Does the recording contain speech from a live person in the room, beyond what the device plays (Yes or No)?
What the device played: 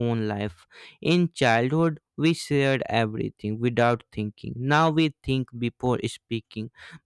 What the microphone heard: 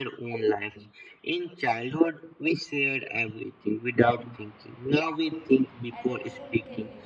Yes